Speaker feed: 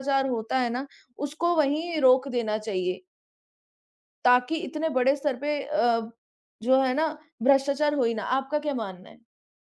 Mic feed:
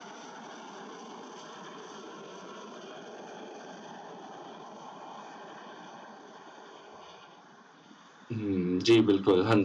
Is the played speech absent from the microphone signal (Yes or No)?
Yes